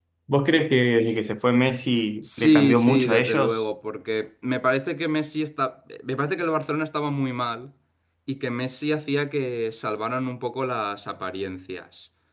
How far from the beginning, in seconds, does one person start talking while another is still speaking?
2.2 s

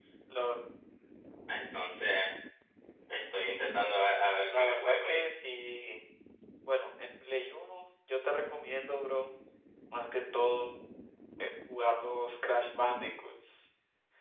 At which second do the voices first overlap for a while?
3.8 s

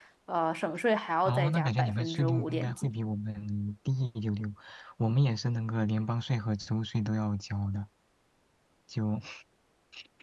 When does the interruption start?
1.2 s

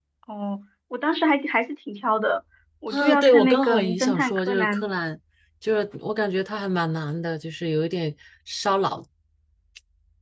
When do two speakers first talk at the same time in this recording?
2.9 s

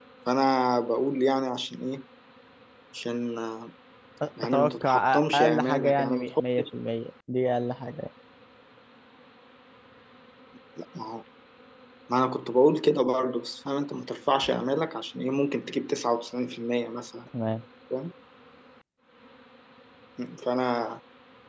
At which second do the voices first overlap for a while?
4.4 s

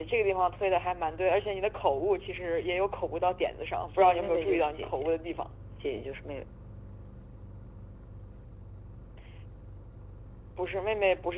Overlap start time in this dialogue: 3.9 s

